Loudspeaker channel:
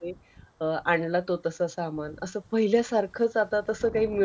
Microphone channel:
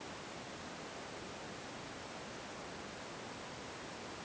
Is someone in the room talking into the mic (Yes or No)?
No